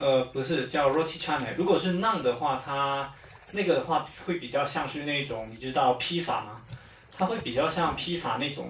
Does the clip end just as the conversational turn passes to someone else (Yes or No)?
No